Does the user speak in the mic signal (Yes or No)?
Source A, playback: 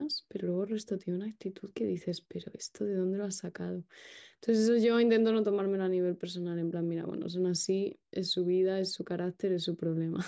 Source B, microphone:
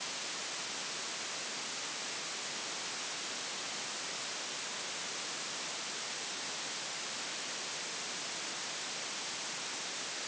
No